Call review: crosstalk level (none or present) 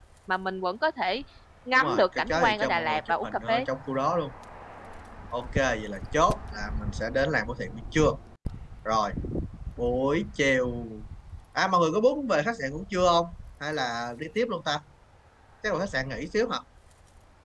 present